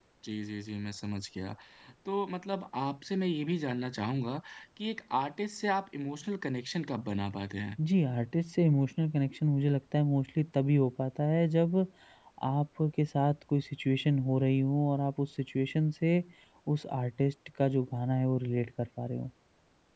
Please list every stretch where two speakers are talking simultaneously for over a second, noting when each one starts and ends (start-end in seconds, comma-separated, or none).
none